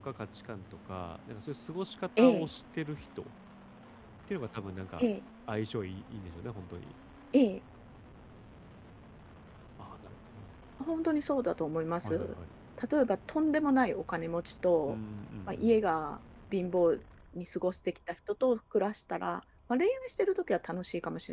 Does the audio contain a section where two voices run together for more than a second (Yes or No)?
No